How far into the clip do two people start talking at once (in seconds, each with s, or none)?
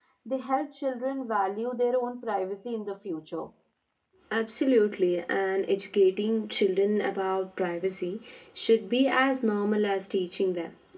none